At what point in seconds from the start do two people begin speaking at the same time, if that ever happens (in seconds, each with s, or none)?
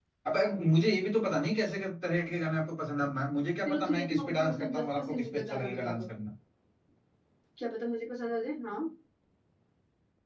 3.6 s